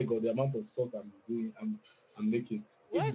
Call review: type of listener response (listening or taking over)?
taking over